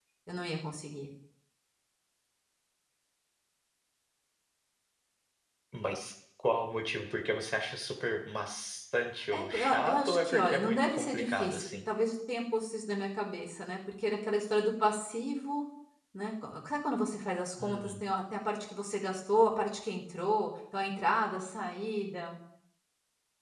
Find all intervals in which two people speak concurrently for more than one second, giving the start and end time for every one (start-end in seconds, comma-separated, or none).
9.3-11.7